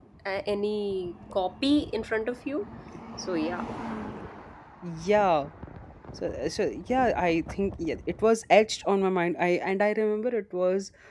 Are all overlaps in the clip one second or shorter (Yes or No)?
Yes